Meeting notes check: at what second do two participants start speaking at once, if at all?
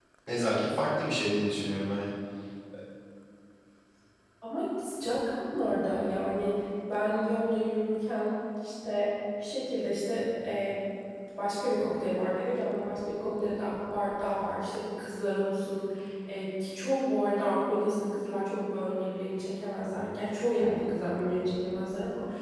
none

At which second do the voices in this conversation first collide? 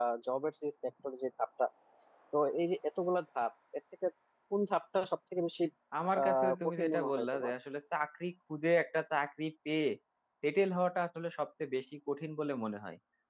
6.2 s

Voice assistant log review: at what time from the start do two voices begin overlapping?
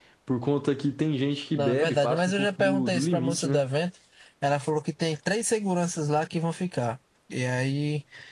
1.5 s

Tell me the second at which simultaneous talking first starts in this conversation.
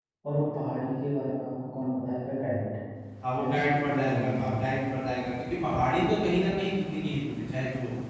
3.4 s

